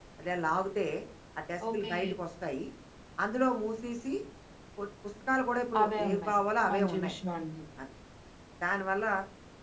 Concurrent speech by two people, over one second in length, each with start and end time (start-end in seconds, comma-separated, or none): none